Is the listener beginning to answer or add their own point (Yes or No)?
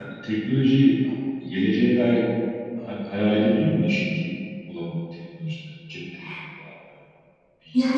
Yes